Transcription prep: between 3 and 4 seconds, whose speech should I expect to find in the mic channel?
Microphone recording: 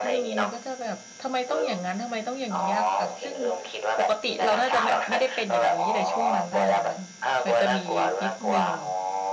both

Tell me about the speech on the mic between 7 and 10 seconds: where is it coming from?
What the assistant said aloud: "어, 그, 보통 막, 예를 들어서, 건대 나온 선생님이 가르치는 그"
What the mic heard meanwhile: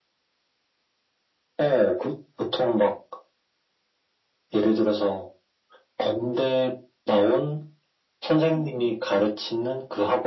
echo only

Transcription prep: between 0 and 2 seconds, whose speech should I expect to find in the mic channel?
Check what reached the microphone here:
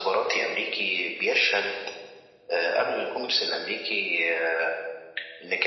echo only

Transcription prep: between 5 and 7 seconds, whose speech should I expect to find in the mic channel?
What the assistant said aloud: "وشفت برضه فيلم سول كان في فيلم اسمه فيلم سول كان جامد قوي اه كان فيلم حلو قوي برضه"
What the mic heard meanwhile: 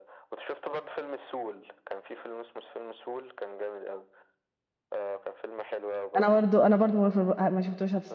both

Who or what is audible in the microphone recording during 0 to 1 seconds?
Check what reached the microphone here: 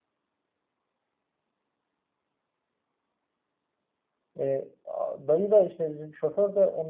neither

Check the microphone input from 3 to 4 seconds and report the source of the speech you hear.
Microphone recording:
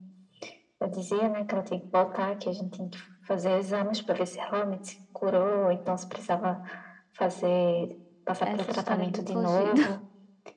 echo only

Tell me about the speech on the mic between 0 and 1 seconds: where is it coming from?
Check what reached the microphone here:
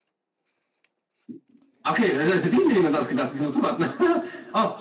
neither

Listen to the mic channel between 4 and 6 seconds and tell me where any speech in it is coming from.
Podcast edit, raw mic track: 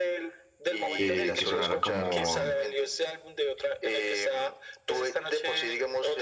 echo only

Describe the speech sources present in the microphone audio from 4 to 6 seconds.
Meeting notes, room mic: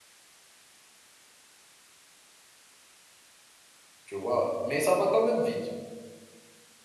user only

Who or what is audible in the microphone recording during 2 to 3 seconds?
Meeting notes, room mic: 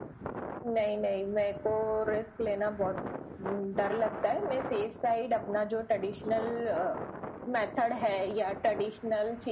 echo only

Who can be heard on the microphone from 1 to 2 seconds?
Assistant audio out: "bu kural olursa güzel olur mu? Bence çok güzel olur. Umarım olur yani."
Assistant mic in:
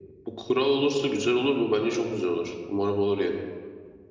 echo only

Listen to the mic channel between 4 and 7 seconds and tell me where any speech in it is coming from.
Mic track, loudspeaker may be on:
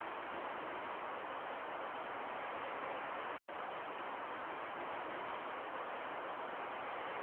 neither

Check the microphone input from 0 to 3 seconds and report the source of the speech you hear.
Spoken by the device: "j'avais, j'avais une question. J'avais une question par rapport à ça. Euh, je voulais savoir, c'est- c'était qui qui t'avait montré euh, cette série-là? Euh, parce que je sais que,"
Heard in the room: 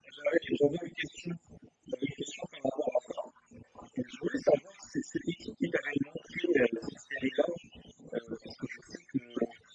echo only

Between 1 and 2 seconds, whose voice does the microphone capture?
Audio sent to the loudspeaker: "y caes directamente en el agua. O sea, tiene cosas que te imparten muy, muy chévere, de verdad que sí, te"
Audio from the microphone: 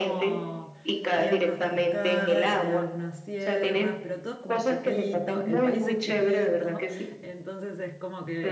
both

